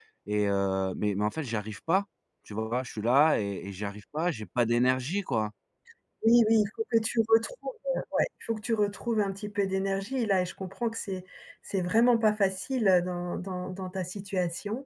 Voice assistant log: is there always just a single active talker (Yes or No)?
Yes